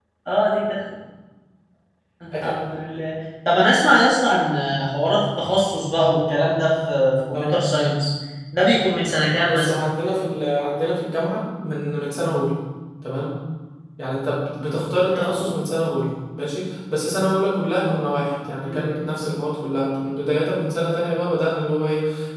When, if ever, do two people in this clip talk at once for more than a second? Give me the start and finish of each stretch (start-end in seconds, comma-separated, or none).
none